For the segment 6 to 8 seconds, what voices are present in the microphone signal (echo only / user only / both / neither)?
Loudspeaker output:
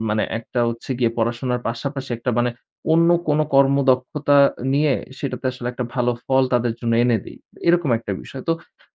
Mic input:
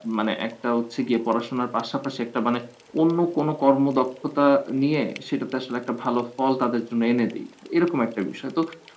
echo only